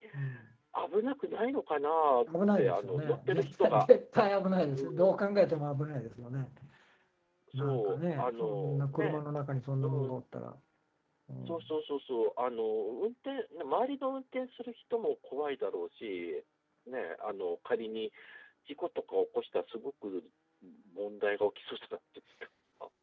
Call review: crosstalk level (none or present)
present